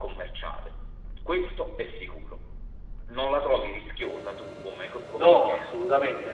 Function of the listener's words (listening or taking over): taking over